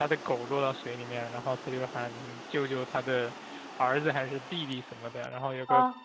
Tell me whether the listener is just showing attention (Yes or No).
Yes